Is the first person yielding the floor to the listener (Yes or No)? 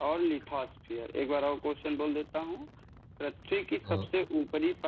No